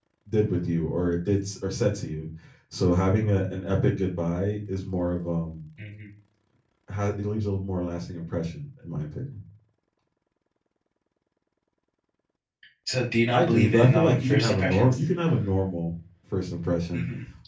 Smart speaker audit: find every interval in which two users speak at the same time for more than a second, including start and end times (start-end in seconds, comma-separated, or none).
13.3-15.0